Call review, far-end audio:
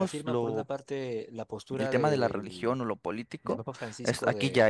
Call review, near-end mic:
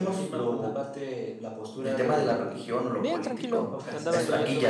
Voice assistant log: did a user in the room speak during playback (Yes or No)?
Yes